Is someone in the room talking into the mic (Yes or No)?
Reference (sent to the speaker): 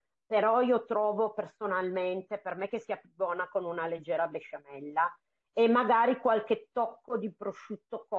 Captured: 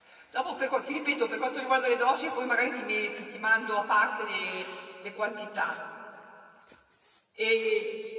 Yes